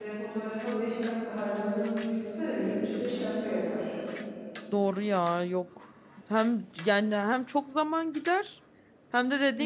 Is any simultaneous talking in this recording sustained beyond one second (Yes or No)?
No